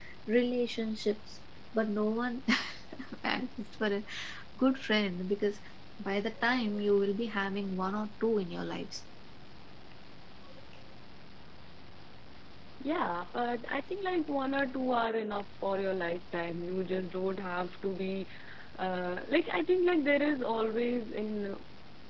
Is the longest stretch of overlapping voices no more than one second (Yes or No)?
Yes